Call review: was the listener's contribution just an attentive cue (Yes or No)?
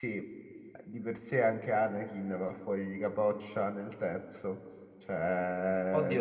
No